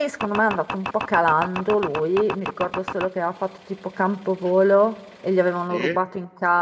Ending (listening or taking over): listening